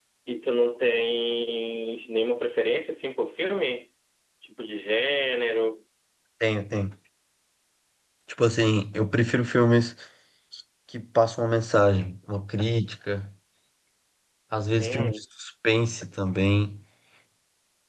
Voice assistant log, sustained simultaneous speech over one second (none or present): none